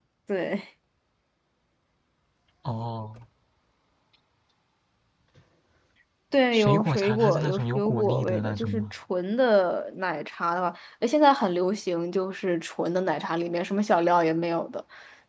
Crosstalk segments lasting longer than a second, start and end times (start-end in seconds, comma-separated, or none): 6.5-8.8